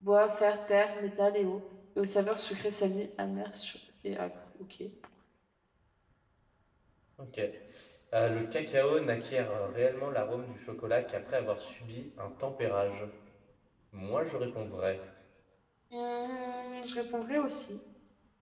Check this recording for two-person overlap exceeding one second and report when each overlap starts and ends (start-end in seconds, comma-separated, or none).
none